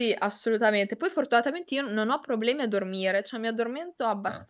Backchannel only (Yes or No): Yes